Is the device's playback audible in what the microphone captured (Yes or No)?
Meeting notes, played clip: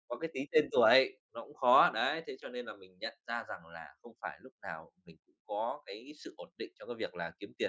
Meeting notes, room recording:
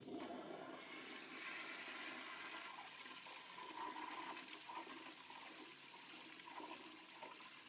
No